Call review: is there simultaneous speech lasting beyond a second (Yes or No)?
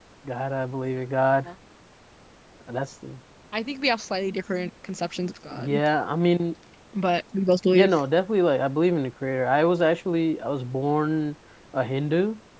No